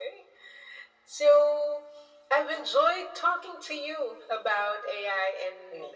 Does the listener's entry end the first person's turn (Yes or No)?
No